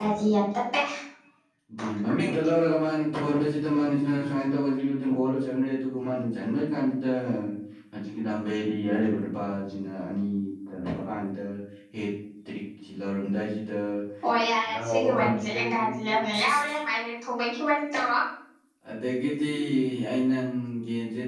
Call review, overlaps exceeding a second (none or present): present